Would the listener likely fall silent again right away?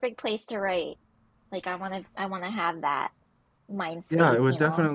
No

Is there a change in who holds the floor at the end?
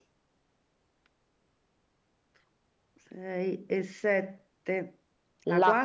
Yes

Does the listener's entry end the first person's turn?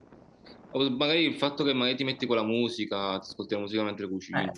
Yes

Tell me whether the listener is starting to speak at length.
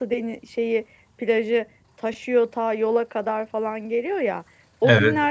No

